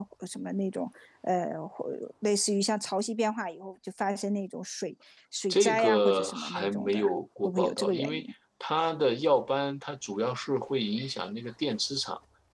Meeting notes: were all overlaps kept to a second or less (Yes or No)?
No